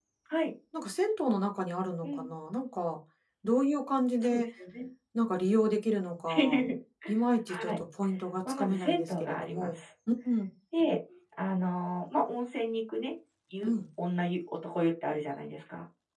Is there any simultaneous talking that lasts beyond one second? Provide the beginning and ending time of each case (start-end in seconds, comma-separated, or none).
8.5-9.8